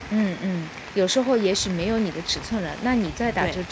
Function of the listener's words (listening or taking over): listening